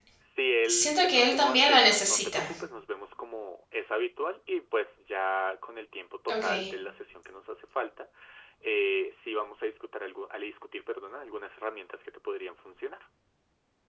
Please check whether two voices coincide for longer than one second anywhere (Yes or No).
Yes